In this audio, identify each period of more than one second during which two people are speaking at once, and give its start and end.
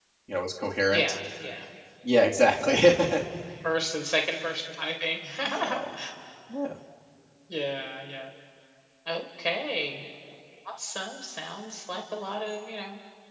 none

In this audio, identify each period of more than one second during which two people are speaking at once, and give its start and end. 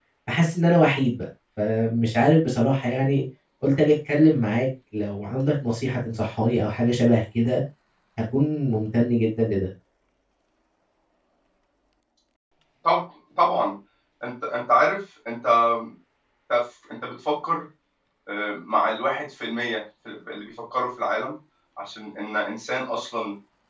none

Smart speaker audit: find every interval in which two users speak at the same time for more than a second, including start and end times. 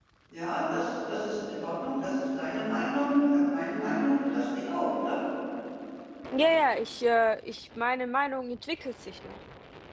none

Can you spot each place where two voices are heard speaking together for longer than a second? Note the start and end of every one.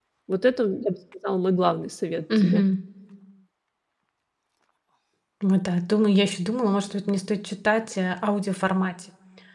none

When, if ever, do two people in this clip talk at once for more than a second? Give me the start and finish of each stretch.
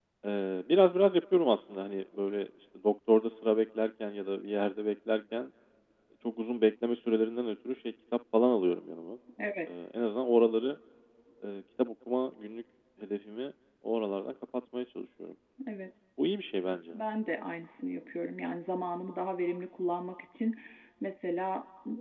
none

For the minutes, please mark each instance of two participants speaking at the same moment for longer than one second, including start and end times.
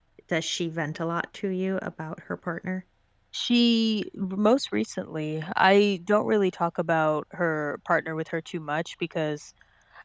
none

